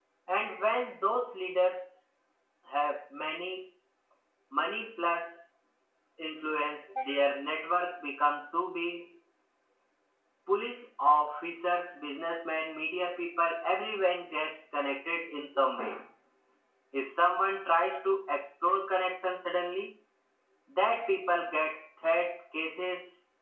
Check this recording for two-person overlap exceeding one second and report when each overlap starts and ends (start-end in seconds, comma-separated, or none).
none